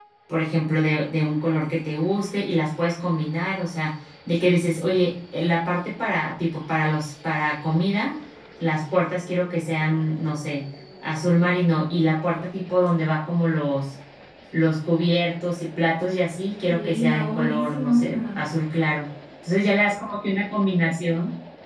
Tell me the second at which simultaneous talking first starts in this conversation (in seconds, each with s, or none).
16.7 s